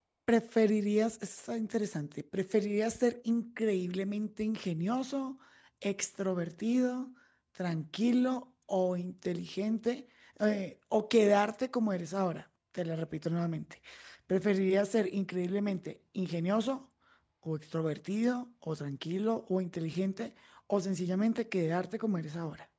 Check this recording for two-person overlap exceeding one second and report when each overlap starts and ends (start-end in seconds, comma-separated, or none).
none